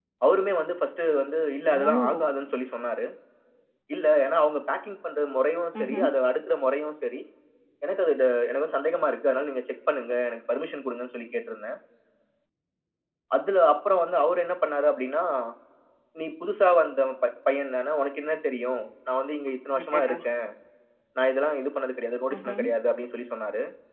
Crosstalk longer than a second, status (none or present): none